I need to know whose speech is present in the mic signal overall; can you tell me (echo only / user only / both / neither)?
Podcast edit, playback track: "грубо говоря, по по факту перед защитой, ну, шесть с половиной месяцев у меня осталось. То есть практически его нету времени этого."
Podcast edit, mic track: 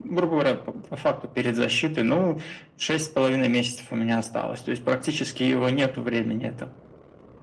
echo only